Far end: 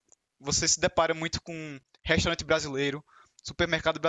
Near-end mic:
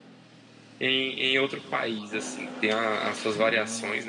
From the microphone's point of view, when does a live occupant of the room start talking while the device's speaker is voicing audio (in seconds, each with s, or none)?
0.8 s